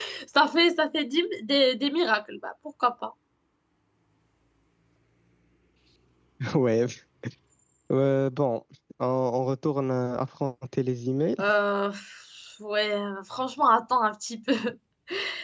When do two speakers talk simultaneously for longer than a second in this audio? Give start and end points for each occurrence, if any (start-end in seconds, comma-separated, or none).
none